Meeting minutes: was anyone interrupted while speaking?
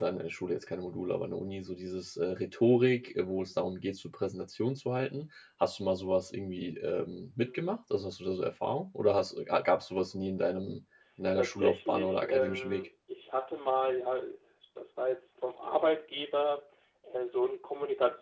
Yes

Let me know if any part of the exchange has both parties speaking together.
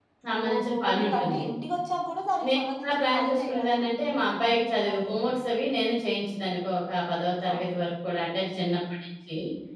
Yes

